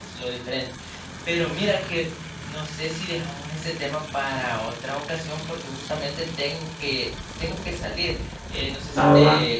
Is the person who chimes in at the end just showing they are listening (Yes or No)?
Yes